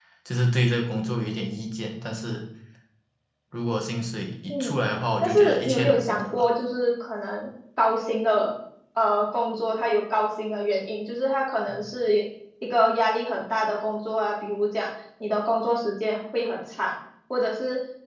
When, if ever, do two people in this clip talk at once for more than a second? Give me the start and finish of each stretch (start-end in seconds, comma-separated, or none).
5.2-6.4